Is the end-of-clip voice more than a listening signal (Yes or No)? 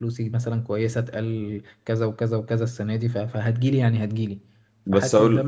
No